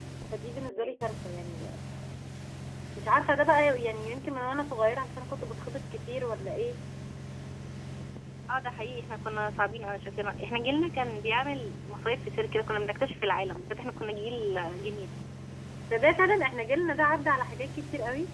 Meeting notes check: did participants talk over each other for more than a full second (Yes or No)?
No